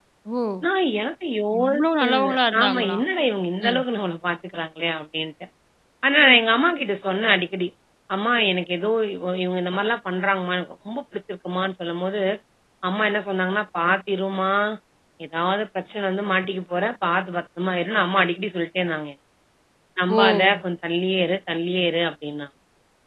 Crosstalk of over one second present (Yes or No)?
Yes